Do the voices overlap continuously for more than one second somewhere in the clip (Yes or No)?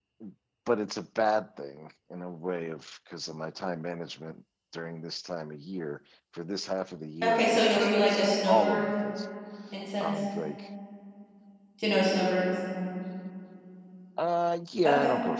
Yes